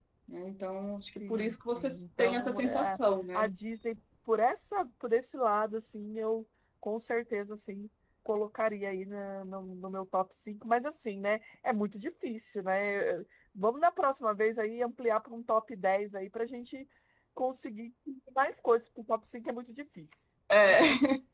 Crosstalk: present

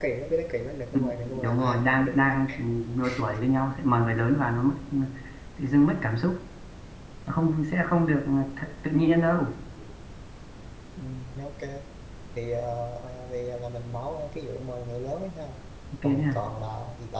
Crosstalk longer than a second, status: present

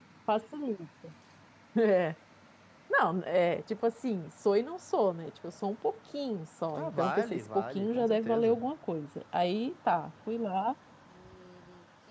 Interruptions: present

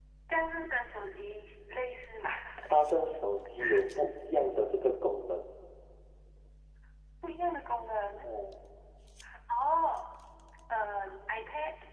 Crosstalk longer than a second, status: none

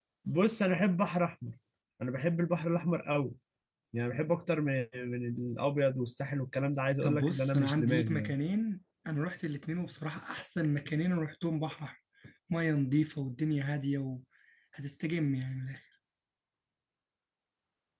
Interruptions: present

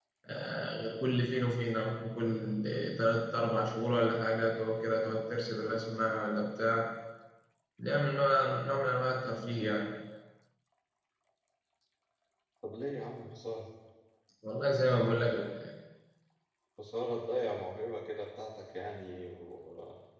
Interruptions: none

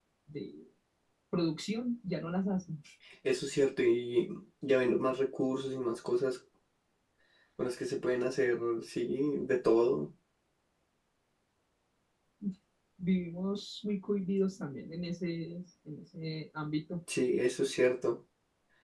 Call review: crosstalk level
none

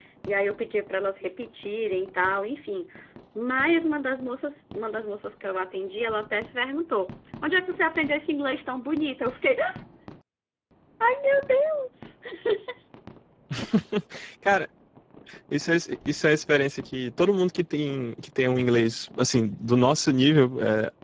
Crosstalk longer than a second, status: none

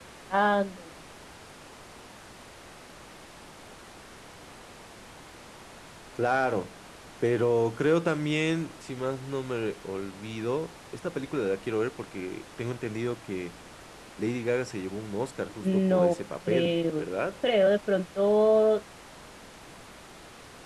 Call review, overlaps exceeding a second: present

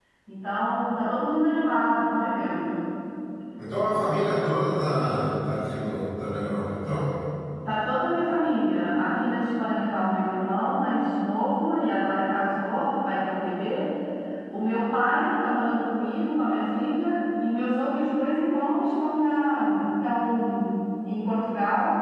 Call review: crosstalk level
none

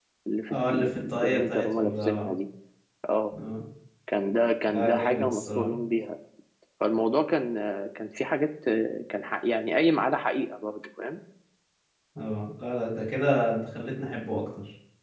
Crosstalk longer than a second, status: present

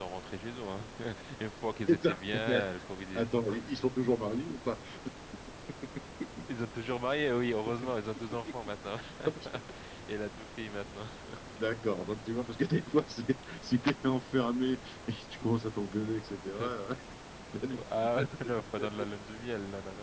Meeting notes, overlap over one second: present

